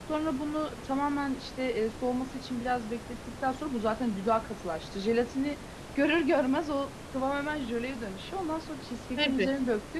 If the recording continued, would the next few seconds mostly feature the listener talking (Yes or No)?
No